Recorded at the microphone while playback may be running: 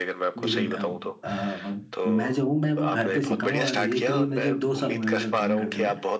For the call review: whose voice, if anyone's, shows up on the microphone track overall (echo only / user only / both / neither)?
both